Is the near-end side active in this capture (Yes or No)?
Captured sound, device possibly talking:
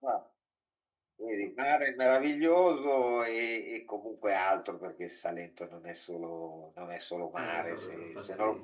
Yes